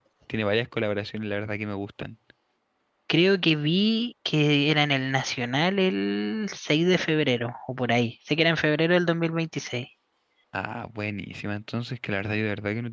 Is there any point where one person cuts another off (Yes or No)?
No